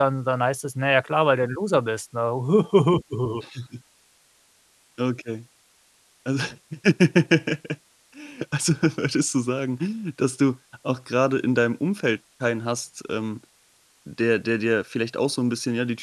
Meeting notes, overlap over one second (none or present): none